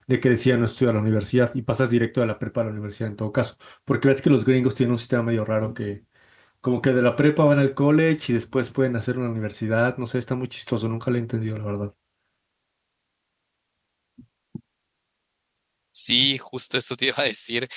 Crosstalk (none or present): none